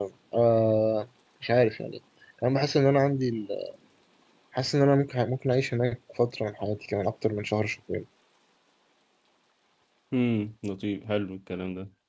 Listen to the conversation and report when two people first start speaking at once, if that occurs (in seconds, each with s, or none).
none